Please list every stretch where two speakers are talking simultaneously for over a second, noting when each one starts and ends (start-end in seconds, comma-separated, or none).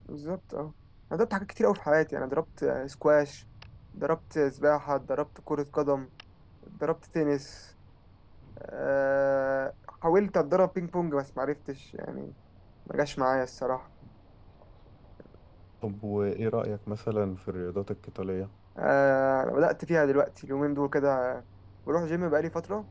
none